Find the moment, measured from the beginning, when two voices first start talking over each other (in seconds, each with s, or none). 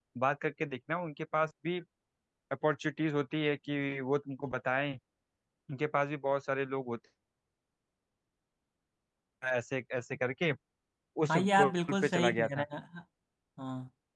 11.3 s